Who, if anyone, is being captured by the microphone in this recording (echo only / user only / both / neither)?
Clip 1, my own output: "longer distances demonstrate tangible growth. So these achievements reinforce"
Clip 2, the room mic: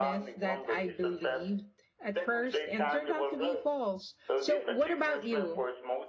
both